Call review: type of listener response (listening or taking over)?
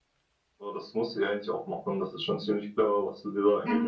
taking over